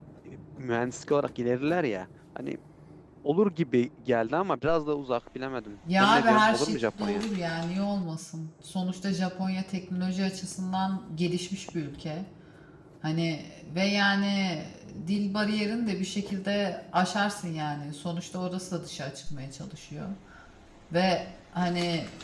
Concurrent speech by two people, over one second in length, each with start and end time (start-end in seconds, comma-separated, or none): 6.0-7.2